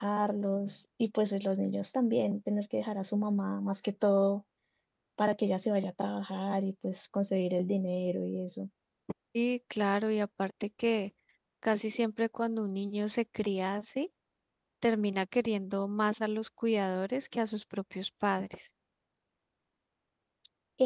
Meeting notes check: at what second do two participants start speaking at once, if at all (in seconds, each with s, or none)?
none